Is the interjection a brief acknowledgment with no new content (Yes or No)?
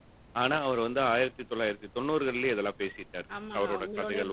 No